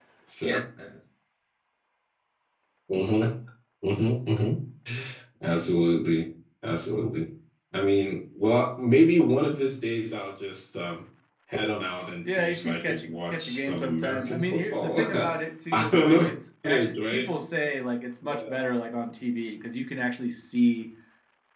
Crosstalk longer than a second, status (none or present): present